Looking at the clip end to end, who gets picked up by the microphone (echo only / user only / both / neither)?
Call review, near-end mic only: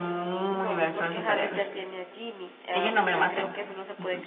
both